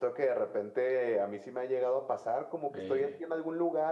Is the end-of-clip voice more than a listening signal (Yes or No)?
No